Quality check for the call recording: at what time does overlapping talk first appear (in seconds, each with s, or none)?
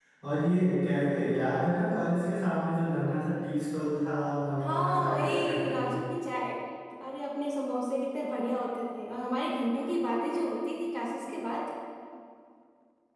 4.6 s